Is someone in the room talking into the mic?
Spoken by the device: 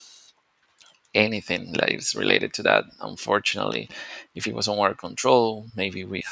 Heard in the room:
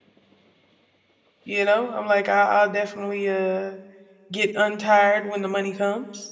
Yes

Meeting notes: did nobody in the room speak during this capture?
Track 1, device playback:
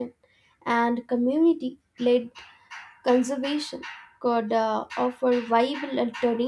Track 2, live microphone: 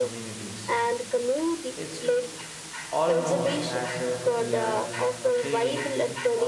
No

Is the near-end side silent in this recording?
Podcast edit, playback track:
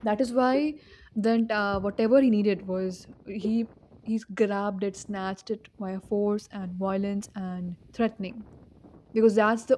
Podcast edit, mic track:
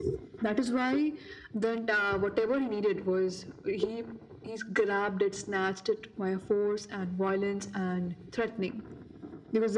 Yes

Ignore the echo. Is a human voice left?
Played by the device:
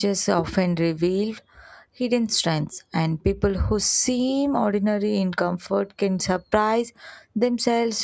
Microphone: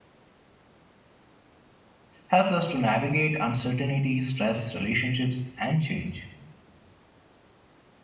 Yes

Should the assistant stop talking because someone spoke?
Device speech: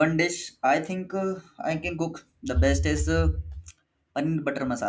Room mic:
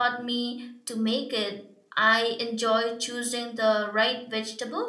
Yes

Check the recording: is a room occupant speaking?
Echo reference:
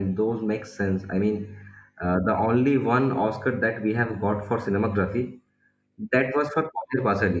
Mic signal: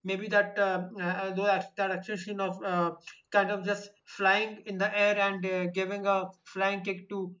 Yes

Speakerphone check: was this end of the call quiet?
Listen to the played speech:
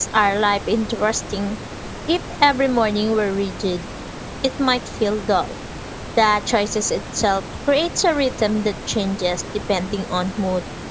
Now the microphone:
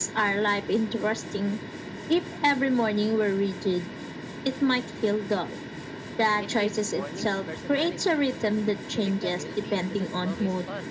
No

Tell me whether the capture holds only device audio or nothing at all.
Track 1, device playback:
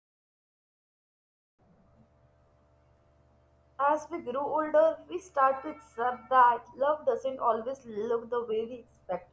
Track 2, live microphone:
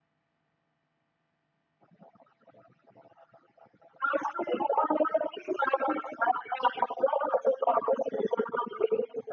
Yes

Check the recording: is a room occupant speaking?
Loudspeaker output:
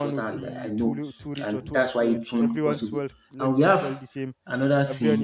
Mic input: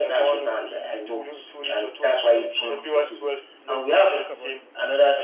Yes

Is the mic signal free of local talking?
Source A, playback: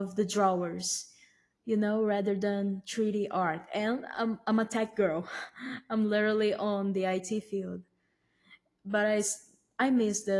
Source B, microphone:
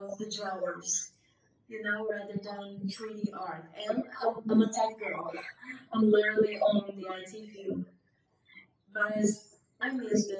Yes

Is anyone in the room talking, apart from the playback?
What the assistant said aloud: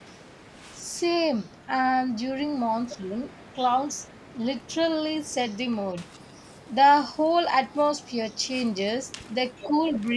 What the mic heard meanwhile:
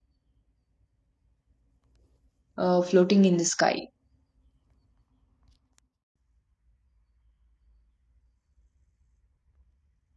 Yes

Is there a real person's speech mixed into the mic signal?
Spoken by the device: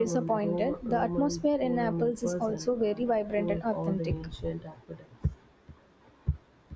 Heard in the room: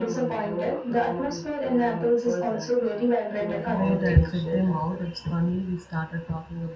Yes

